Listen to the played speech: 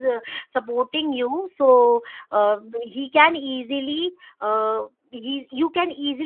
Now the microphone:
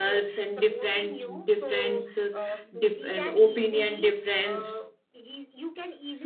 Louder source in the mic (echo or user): user